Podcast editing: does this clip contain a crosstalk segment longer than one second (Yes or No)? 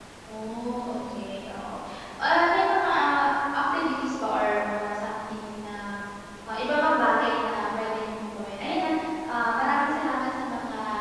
No